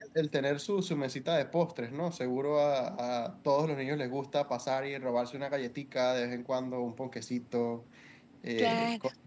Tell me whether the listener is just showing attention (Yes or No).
Yes